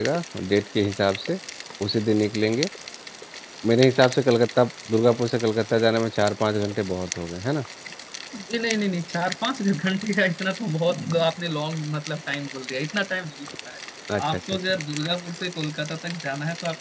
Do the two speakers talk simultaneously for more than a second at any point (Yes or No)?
No